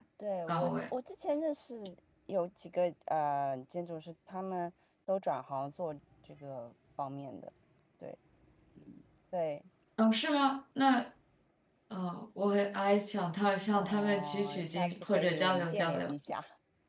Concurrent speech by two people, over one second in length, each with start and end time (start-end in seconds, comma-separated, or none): 13.7-16.1